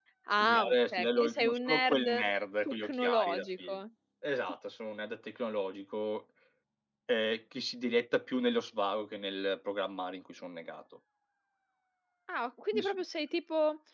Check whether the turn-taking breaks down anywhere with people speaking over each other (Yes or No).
Yes